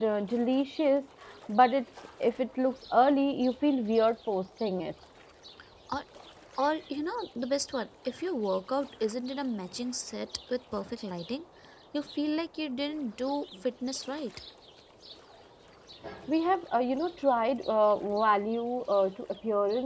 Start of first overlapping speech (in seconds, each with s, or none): none